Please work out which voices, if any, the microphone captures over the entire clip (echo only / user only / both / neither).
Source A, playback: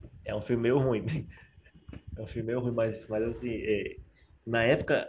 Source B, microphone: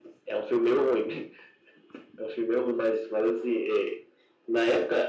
echo only